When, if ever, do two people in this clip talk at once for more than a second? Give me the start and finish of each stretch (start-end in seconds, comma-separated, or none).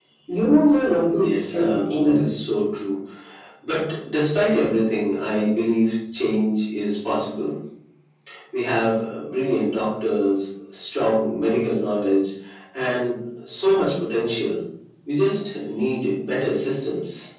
0.7-2.2